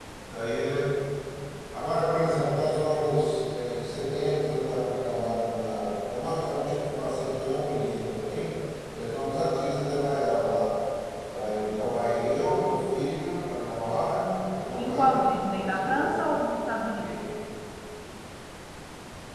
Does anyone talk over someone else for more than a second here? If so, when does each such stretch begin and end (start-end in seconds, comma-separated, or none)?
14.8-16.2